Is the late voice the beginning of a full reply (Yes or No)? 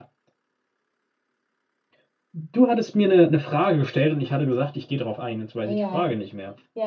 Yes